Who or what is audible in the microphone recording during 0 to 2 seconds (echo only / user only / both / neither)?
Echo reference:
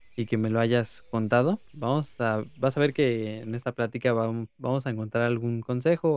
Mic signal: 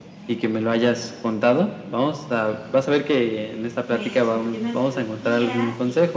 echo only